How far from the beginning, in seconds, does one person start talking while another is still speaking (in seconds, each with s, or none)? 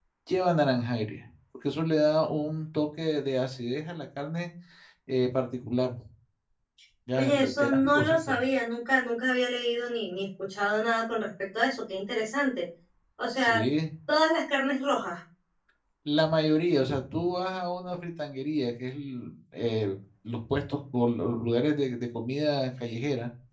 7.2 s